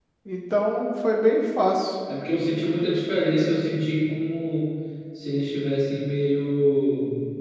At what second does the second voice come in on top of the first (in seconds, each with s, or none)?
none